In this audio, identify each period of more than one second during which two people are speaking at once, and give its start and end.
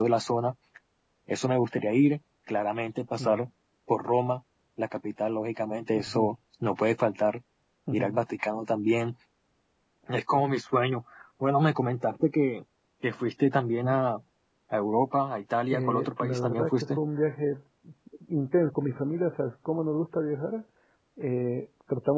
15.7-17.0

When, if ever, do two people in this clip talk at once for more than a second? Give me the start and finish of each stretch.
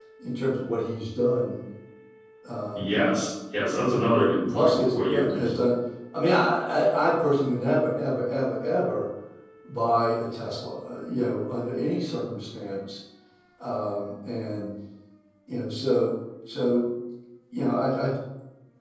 3.9-5.5

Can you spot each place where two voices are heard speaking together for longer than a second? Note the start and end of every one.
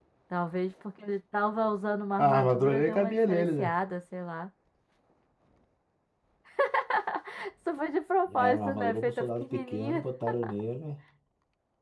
2.2-3.7, 8.3-10.0

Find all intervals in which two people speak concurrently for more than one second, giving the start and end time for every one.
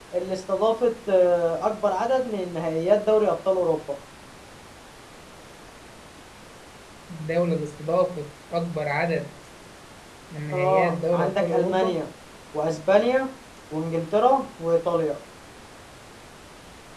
10.5-11.9

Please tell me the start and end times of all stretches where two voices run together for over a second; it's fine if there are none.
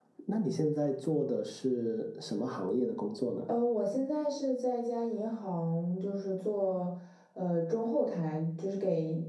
none

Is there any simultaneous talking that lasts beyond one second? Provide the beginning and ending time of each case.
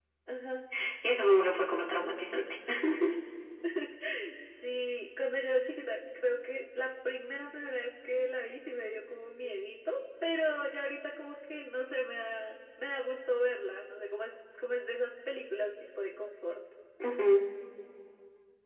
none

